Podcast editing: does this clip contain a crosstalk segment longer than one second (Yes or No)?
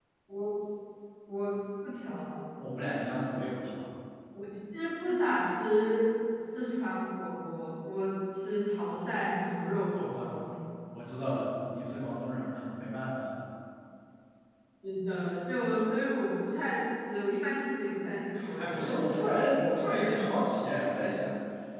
Yes